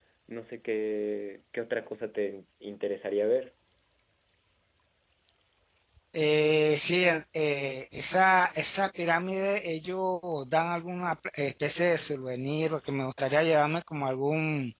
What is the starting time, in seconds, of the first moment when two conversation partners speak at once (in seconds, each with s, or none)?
none